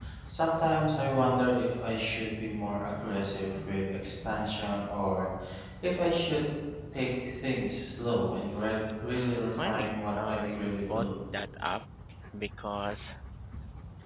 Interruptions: present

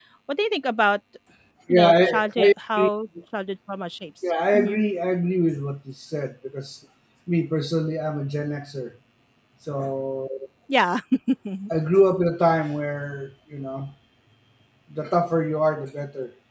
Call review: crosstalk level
present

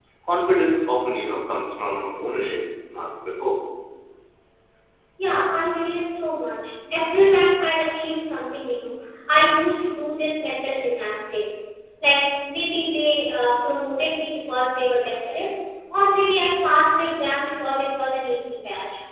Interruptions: none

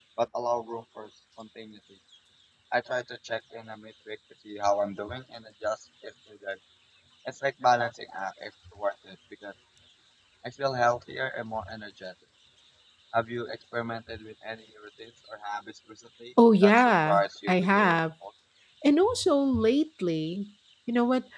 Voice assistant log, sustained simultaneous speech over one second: present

